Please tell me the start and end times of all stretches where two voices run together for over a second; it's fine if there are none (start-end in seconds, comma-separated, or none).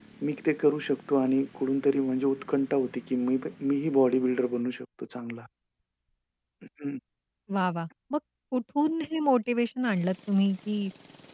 none